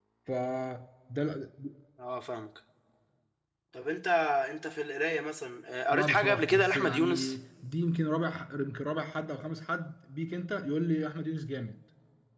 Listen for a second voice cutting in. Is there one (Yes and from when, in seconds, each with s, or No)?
Yes, from 5.9 s